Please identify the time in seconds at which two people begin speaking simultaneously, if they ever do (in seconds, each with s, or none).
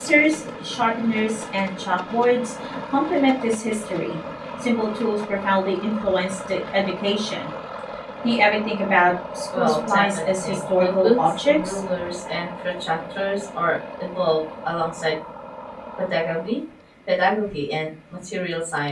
9.5 s